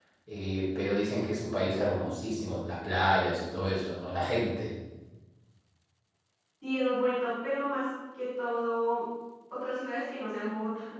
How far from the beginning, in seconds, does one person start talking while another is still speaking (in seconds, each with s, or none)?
none